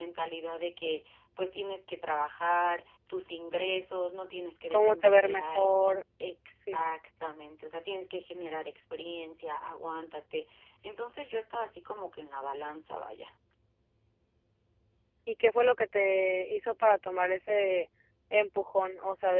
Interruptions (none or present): present